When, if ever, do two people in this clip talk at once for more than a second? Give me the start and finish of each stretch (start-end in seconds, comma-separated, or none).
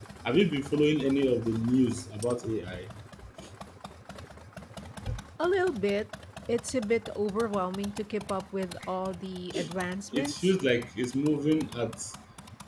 none